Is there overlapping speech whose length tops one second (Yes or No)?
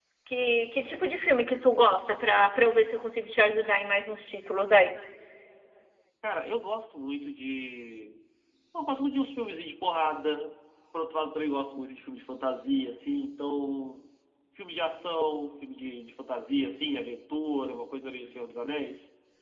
No